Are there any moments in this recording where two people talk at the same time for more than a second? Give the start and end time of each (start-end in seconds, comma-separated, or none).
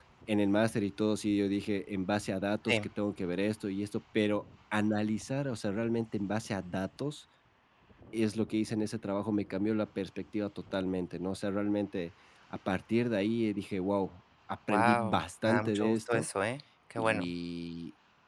14.7-16.2